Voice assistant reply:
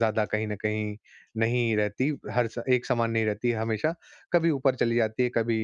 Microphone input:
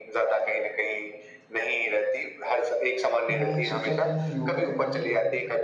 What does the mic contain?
both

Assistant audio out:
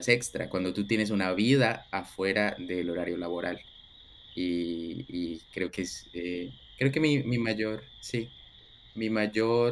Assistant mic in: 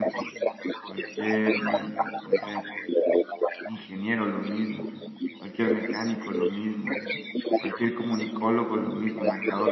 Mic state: both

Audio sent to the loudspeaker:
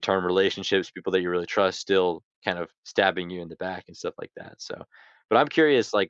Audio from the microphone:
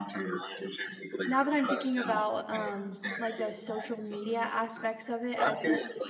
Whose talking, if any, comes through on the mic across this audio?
both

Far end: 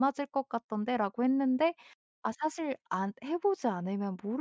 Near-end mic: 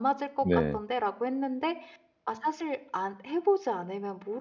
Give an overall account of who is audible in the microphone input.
both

